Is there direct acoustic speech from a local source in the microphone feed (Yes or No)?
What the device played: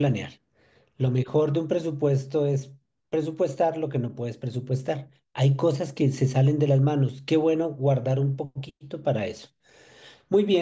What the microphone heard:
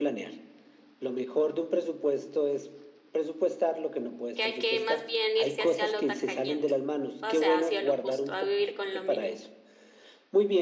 Yes